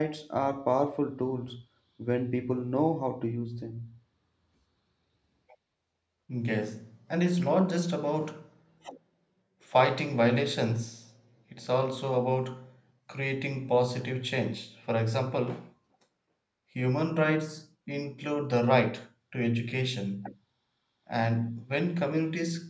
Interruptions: none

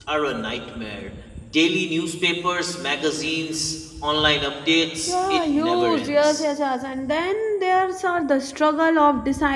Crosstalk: present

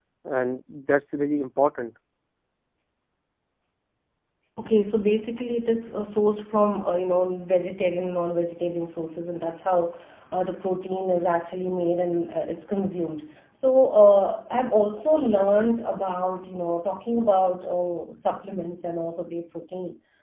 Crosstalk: none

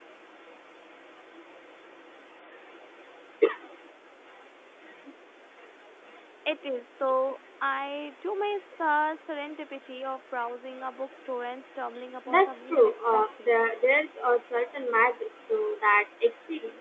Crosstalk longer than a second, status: present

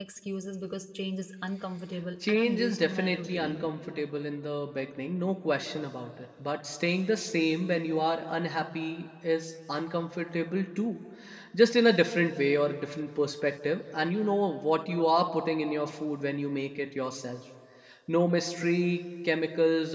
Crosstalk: present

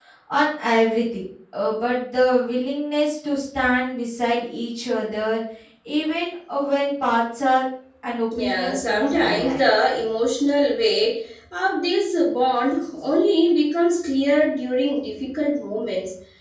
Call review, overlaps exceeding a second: present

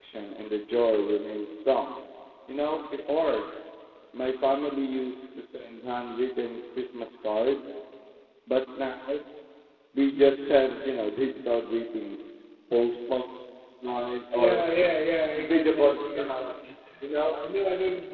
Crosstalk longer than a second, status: present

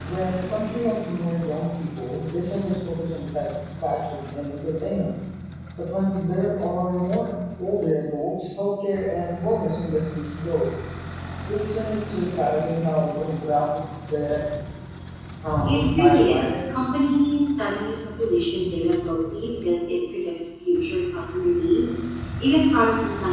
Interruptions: present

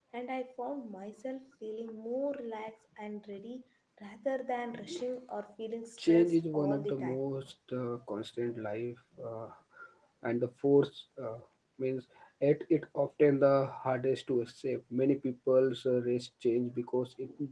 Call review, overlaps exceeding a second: present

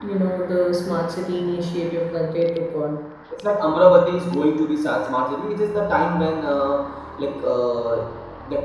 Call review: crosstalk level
none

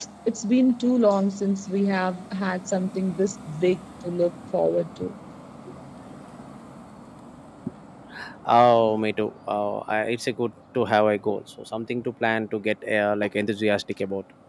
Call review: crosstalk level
none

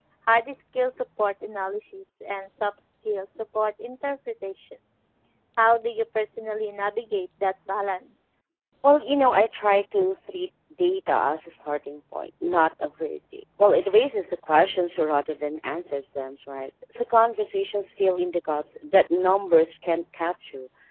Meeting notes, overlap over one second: none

